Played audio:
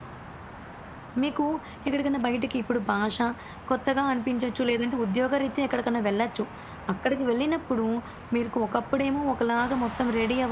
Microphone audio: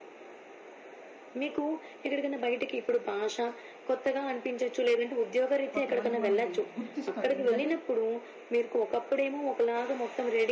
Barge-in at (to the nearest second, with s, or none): 6 s